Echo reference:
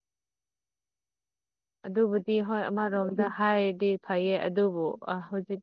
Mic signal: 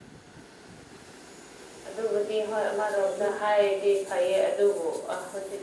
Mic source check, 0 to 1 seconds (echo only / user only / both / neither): neither